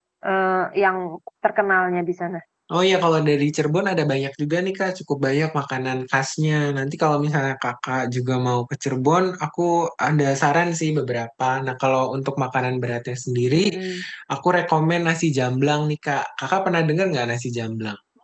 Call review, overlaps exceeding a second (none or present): none